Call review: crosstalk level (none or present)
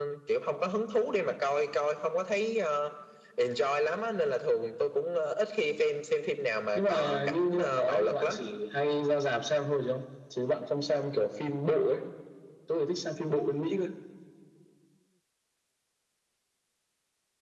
present